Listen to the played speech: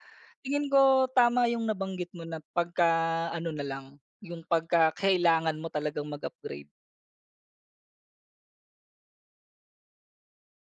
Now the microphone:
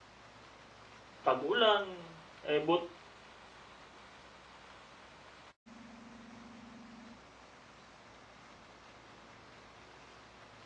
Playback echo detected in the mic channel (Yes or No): No